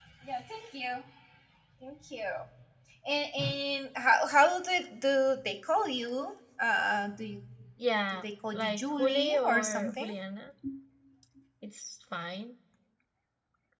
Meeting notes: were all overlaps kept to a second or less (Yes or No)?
No